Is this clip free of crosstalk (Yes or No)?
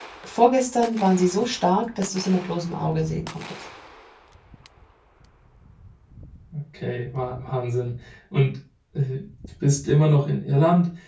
Yes